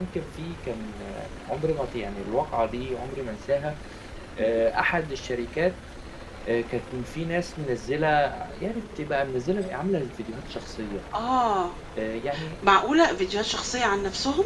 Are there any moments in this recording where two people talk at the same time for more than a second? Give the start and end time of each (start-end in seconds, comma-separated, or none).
none